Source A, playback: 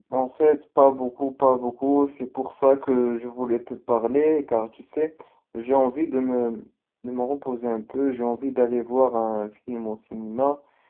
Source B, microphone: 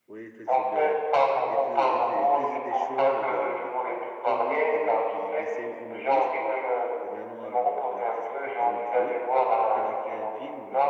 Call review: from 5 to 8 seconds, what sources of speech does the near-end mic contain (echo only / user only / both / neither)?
both